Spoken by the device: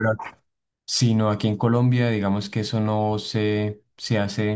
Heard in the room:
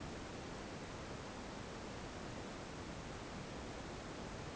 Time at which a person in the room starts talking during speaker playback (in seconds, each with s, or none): none